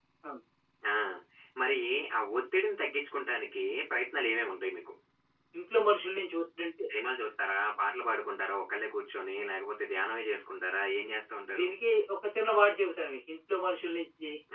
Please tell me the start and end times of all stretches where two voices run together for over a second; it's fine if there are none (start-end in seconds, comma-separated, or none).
none